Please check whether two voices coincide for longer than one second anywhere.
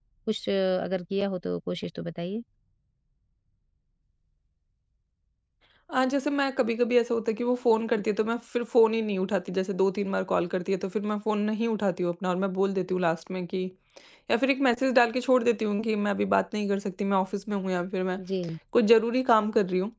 No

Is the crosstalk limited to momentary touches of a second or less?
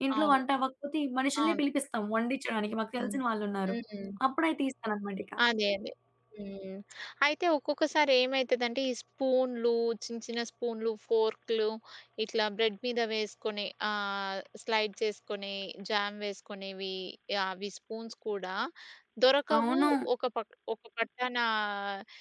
Yes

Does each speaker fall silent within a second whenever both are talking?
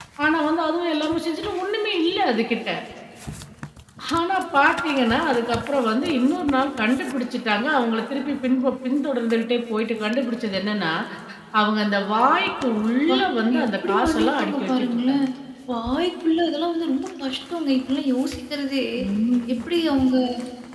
No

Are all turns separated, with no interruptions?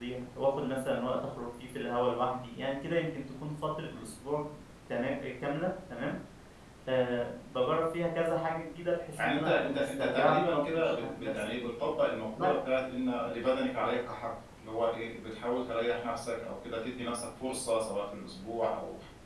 No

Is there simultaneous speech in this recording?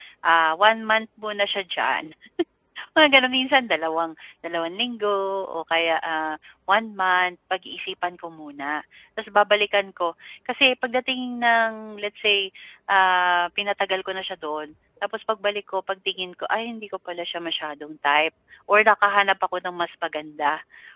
No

